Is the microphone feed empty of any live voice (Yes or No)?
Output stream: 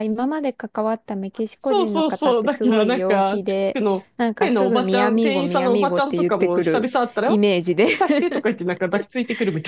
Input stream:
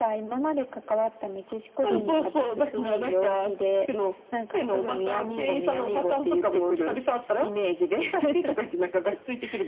No